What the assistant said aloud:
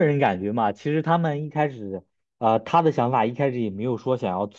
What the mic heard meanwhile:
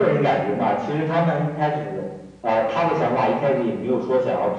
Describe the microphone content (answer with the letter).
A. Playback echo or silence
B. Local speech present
A